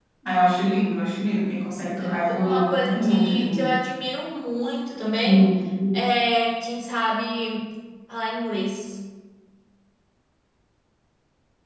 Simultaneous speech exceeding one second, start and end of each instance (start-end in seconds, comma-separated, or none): 2.3-3.8